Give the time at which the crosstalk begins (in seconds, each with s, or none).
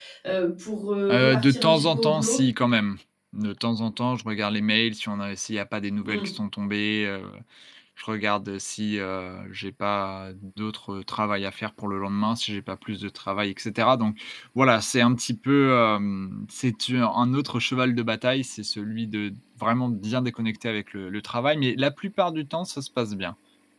1.1 s